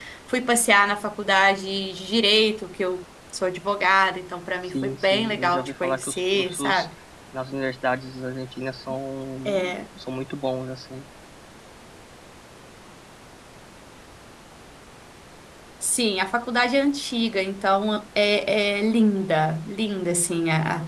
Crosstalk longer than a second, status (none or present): present